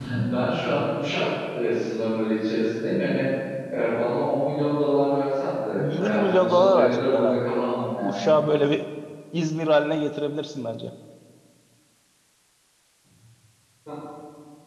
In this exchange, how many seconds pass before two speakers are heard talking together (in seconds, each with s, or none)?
5.8 s